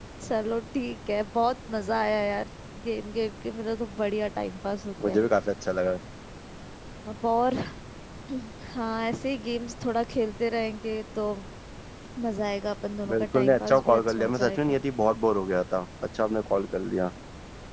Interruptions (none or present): present